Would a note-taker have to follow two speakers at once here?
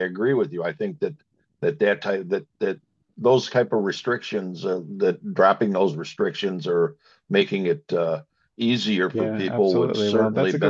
Yes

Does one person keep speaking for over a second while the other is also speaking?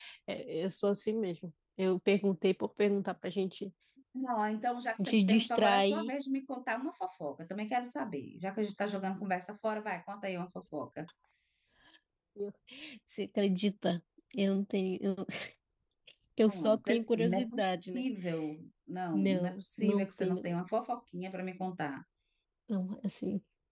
Yes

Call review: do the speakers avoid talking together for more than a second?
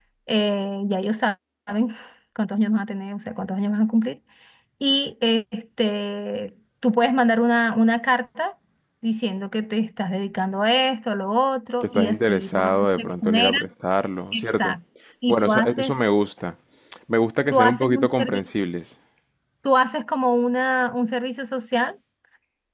No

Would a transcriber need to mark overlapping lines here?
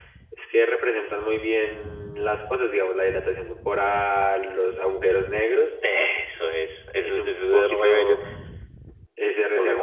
Yes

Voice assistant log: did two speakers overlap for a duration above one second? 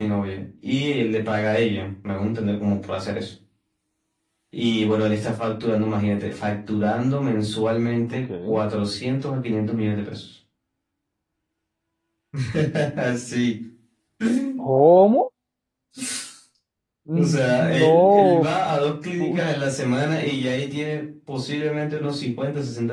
Yes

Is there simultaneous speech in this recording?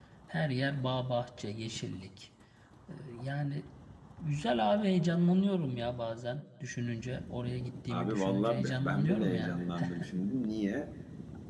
Yes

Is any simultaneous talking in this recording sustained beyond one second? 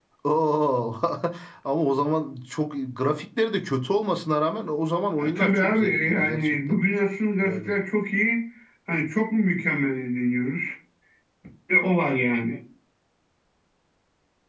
Yes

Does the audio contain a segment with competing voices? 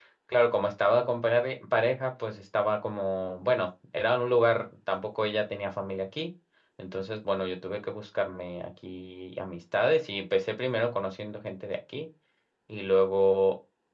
No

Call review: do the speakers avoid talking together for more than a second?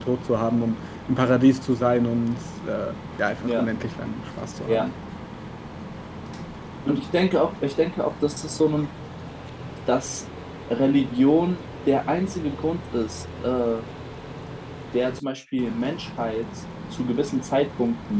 Yes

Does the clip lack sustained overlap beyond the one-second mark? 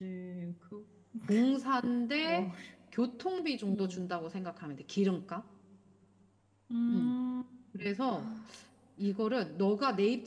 Yes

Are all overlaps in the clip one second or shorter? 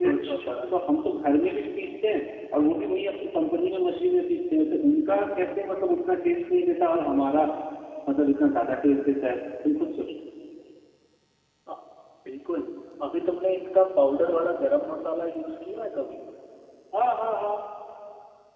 Yes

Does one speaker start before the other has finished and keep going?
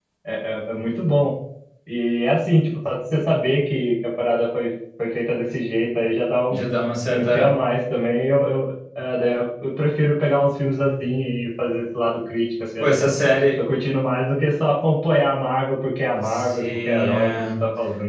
Yes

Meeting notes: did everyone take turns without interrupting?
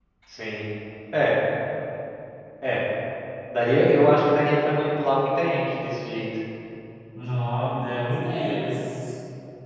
Yes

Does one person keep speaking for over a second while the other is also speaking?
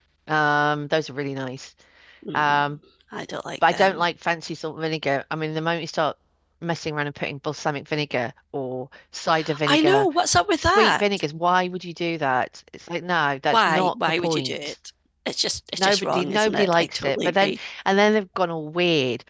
Yes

